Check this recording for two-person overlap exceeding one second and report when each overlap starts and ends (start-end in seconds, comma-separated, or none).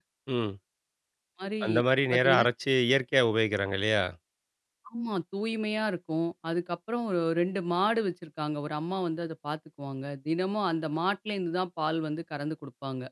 none